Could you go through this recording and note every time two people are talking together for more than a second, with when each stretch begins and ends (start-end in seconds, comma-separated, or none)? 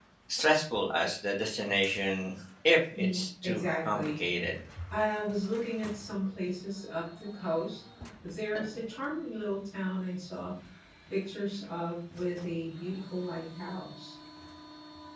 2.9-4.2